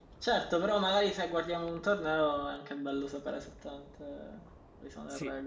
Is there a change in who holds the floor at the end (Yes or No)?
Yes